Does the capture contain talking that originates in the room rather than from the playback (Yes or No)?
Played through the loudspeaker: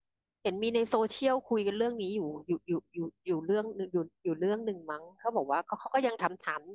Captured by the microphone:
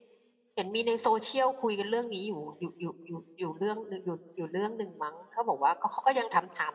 No